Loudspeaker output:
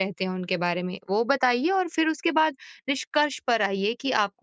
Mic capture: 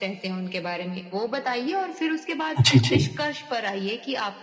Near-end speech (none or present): present